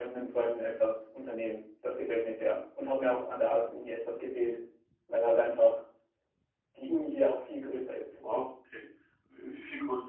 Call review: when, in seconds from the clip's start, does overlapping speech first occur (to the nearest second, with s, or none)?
none